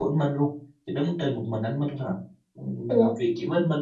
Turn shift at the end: No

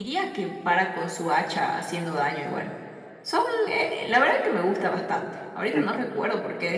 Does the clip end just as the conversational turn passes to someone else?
No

